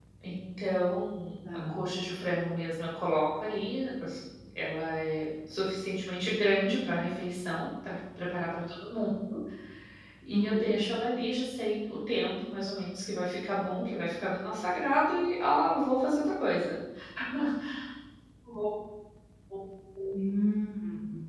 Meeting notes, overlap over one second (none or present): none